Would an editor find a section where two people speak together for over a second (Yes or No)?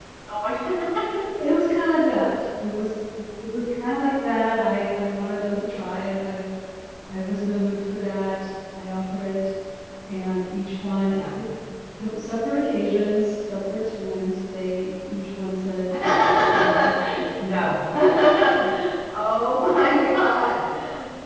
No